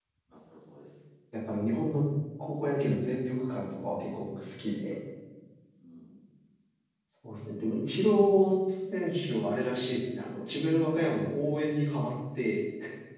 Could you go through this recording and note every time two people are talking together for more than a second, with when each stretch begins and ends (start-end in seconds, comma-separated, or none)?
none